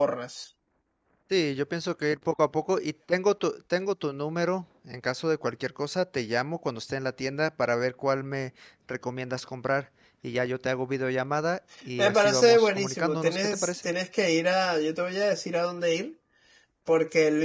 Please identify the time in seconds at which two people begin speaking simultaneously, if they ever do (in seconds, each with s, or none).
12.0 s